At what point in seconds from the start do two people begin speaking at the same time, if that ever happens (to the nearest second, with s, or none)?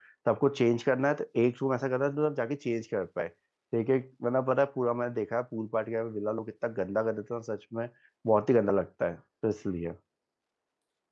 none